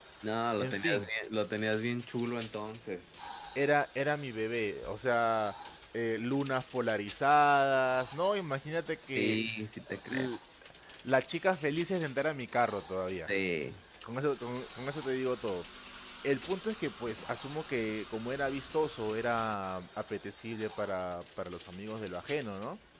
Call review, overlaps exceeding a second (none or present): none